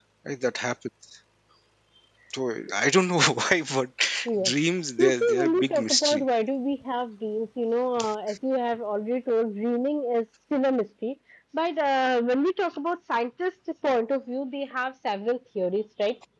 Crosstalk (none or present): present